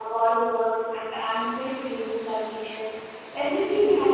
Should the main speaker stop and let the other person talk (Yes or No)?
No